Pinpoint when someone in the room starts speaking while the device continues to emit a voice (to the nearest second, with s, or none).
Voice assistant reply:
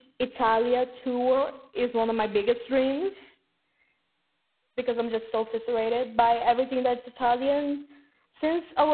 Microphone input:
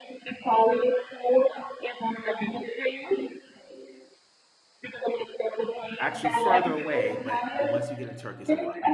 6 s